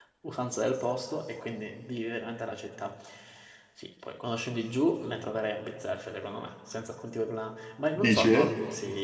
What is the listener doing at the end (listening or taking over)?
listening